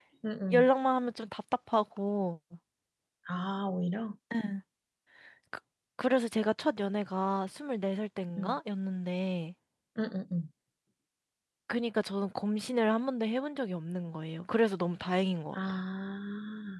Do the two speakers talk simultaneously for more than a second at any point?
No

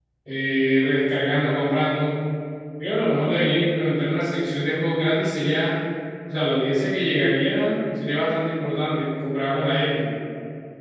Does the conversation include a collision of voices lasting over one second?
No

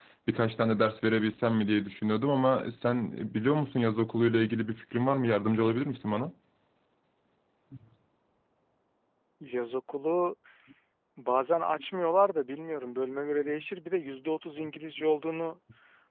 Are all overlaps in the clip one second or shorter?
Yes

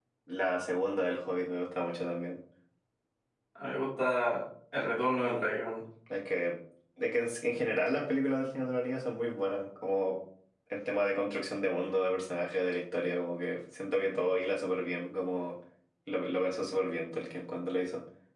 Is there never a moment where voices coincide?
Yes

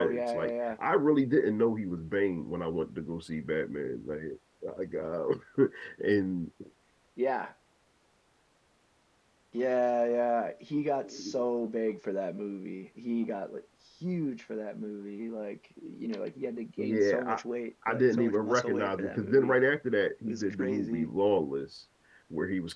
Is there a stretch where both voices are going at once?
Yes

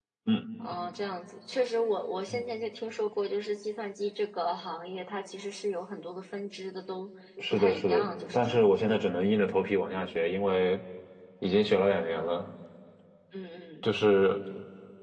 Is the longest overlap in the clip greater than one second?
Yes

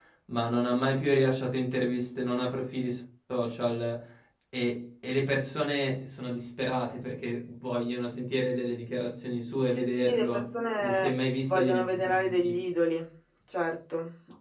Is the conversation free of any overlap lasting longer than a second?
No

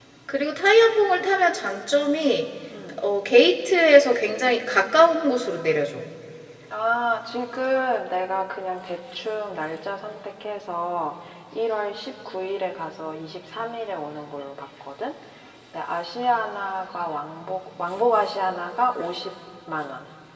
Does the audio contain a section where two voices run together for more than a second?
No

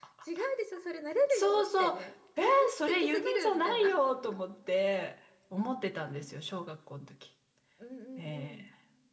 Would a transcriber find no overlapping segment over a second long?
No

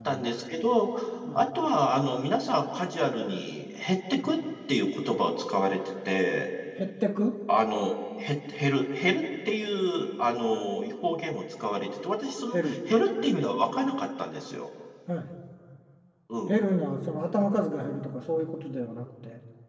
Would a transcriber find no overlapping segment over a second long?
Yes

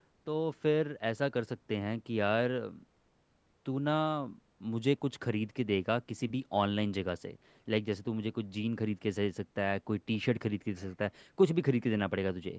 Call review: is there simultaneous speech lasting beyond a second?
No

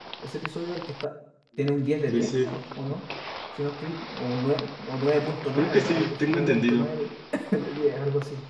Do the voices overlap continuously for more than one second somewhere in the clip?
Yes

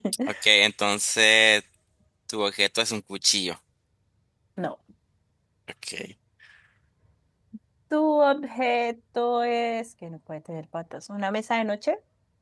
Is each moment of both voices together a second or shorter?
Yes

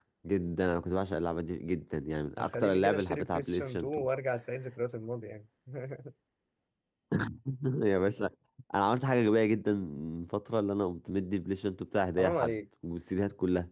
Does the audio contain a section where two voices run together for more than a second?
Yes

